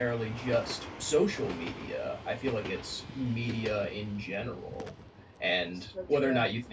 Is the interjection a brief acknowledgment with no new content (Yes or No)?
Yes